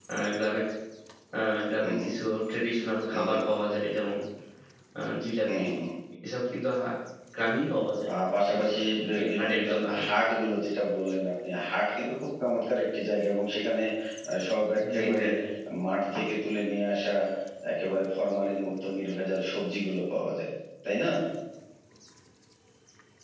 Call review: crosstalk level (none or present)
present